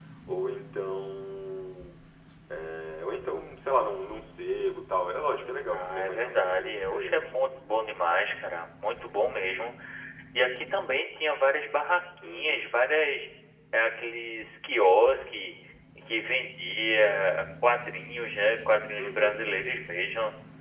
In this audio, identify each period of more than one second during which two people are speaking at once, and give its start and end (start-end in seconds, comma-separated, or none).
5.7-7.2